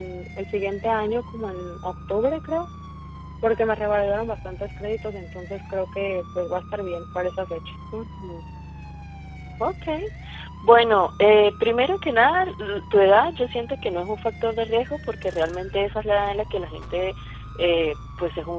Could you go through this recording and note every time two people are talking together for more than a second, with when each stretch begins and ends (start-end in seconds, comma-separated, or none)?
none